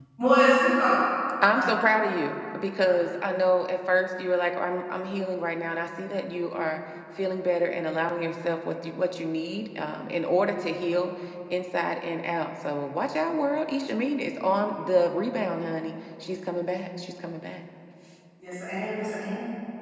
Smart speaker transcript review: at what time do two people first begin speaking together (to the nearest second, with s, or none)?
none